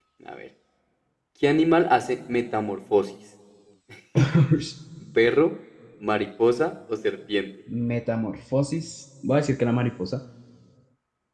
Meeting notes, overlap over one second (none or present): none